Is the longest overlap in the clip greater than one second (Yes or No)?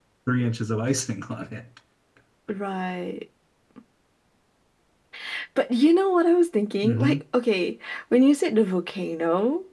No